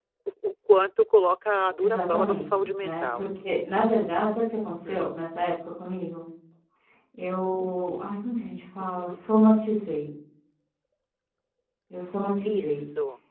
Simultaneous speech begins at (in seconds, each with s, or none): 1.8 s